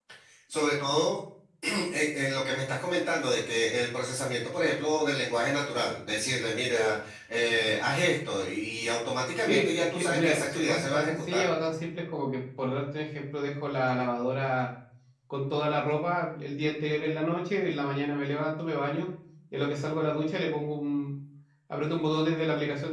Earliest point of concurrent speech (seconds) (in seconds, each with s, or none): 9.4 s